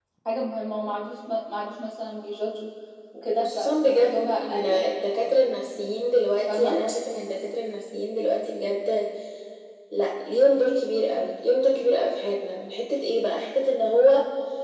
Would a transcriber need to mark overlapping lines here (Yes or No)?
Yes